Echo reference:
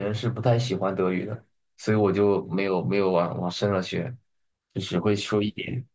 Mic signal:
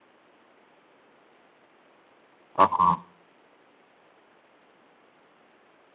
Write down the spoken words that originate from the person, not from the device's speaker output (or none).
啊